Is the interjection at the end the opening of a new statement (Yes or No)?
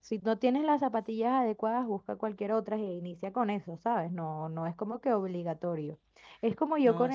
No